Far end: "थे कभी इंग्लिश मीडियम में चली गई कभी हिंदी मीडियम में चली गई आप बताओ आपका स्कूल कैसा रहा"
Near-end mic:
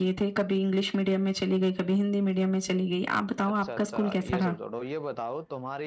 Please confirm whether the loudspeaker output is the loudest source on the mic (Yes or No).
Yes